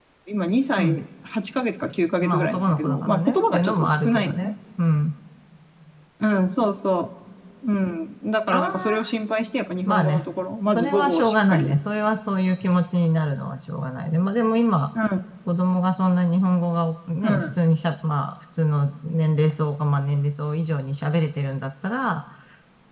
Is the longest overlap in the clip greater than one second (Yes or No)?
Yes